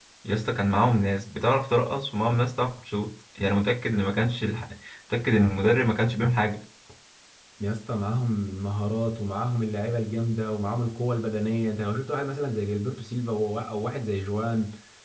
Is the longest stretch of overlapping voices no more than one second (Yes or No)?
Yes